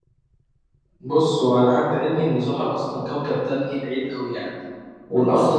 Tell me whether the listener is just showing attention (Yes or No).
Yes